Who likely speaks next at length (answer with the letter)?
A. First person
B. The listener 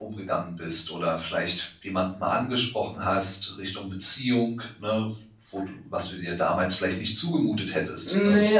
B